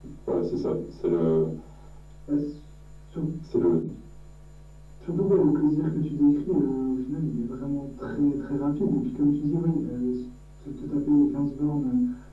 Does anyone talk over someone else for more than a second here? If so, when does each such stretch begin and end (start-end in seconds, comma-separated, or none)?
none